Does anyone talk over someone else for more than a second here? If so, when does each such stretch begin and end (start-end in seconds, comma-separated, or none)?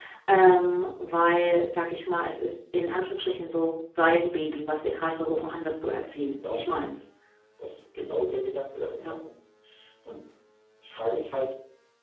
none